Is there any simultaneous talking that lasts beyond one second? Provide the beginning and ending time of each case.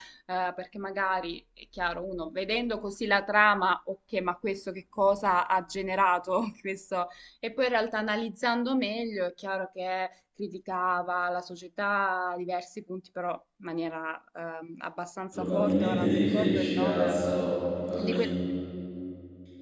15.3-17.2

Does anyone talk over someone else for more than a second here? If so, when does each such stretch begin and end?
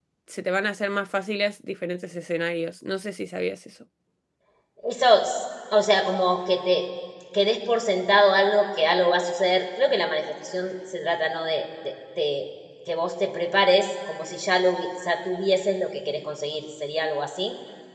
none

